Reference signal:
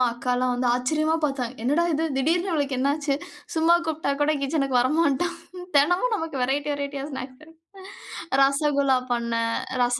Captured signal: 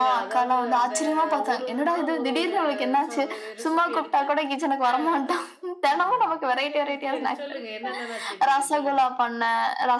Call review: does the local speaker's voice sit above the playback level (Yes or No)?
No